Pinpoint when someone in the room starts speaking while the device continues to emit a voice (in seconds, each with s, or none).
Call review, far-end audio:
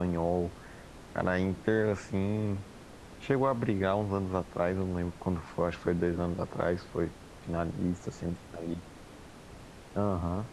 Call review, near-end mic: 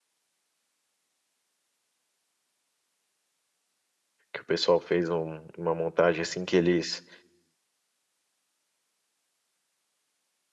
4.3 s